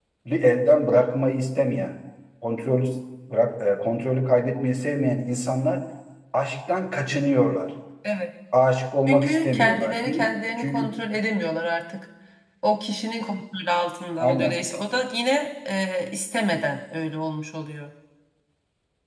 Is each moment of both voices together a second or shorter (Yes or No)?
No